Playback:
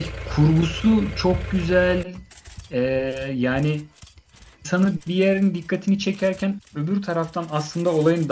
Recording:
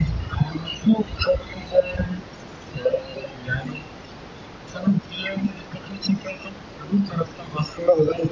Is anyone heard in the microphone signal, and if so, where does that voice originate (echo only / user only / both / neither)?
echo only